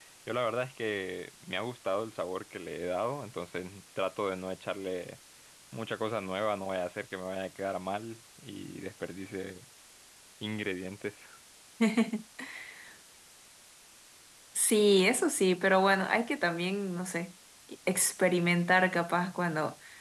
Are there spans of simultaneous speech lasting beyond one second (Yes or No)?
No